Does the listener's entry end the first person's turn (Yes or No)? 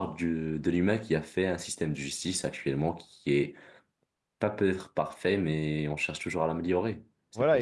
Yes